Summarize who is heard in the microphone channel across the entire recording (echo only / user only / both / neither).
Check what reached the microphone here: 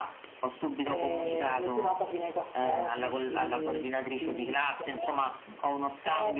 both